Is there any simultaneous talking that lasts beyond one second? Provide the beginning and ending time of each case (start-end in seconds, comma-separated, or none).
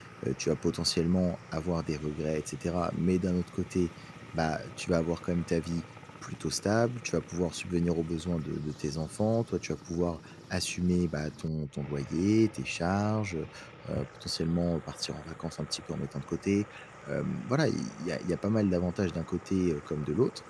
none